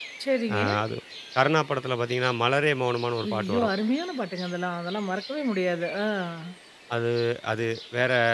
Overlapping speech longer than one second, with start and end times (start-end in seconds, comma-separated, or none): none